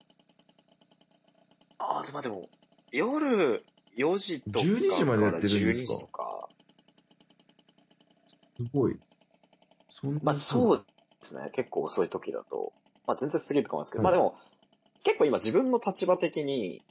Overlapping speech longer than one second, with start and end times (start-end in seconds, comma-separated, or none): 4.5-6.0